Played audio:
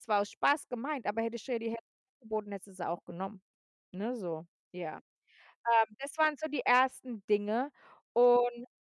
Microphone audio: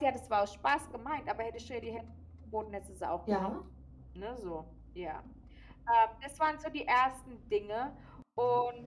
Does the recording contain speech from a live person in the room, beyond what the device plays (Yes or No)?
Yes